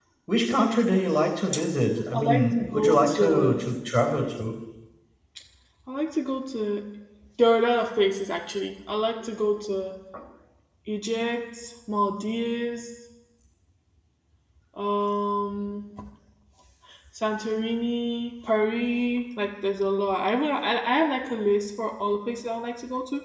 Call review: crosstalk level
present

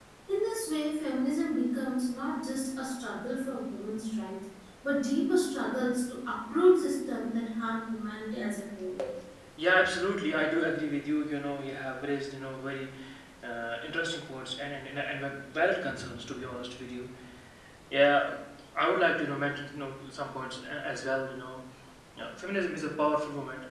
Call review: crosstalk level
none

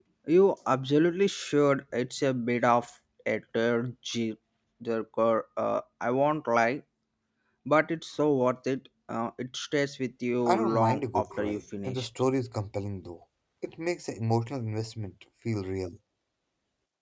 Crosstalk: present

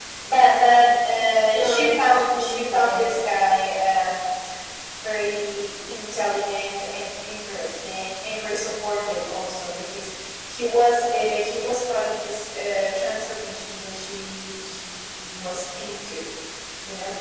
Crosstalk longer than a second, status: present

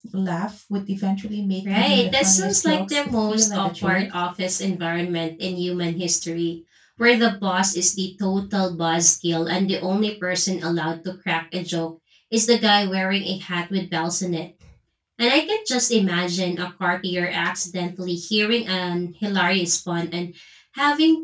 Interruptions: present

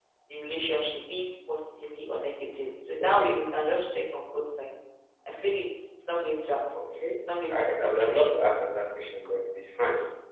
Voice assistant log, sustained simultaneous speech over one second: present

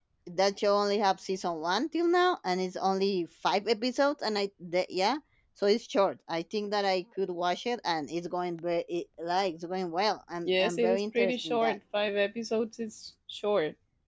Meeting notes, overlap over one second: present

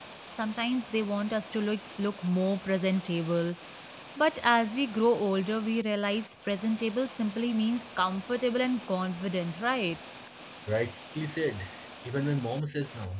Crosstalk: none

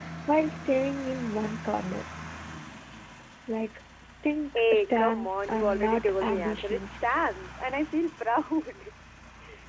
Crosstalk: present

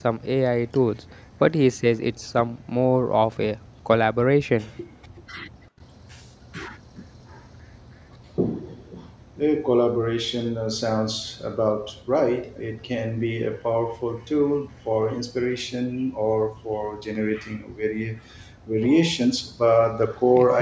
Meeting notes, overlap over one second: none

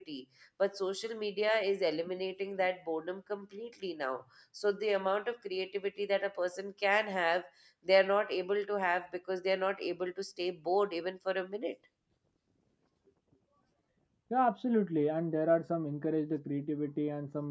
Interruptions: none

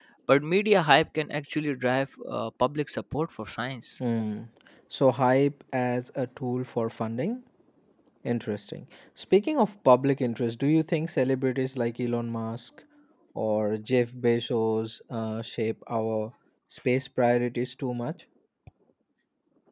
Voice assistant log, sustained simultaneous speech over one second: none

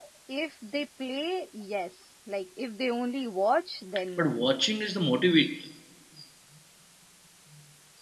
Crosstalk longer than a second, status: none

